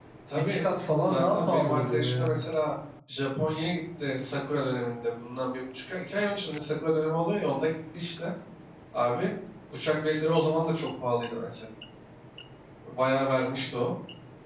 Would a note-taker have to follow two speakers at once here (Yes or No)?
Yes